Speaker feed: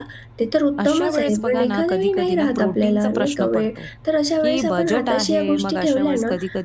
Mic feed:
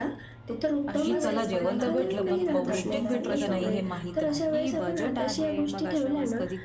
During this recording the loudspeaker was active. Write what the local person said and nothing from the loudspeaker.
की चला जेवण तर भेटलं, पण पौष्टिक भेटलं का नाही हे माहीत नाही.

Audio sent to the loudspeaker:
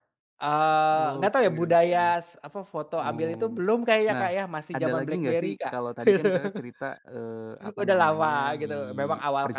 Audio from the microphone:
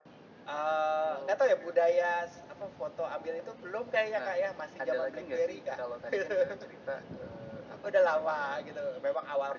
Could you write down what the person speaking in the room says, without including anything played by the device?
none

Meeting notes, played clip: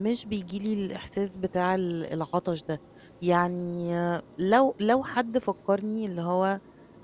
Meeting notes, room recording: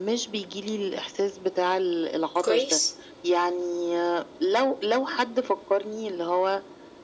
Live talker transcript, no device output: كويس.

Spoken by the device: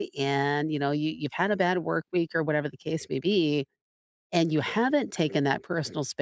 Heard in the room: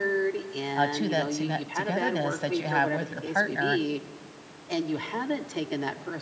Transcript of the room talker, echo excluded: uh, to that tone togetherness that you have with your partner,

